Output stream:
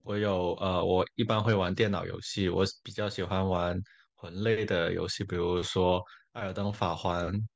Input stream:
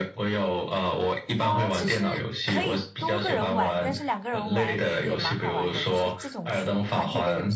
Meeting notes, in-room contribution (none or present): present